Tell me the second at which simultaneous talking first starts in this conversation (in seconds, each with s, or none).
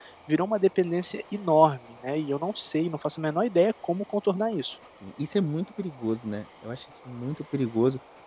none